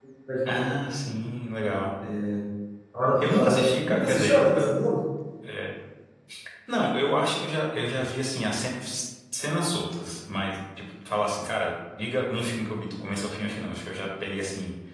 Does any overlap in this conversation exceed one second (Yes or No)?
Yes